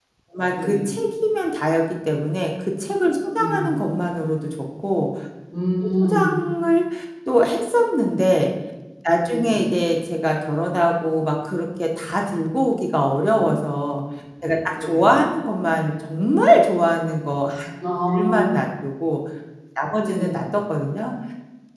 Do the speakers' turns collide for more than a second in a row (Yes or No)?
No